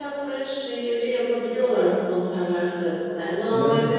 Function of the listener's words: listening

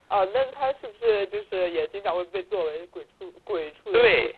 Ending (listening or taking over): taking over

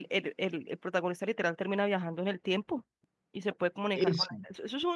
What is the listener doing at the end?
listening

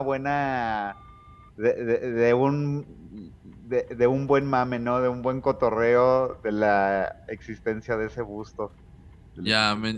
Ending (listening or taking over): taking over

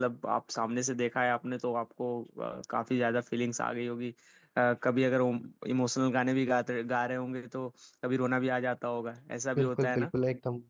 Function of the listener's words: taking over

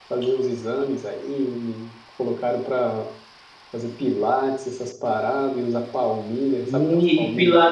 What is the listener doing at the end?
taking over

